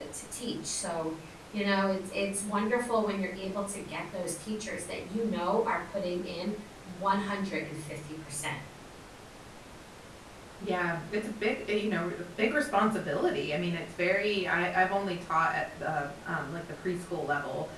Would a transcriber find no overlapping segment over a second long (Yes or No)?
Yes